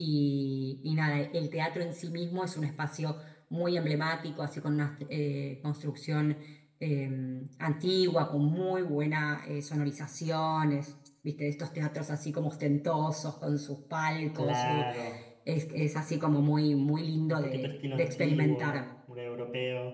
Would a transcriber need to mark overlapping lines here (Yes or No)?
Yes